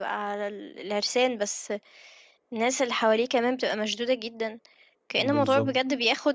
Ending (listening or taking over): listening